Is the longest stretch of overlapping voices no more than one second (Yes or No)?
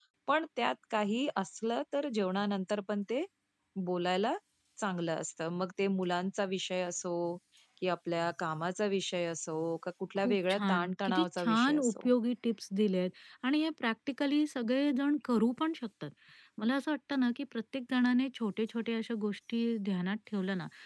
No